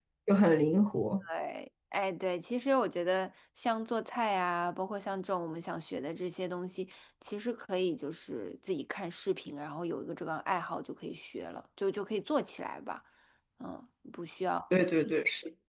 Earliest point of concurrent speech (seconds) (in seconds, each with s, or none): none